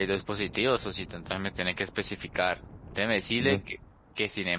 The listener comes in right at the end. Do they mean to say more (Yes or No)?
No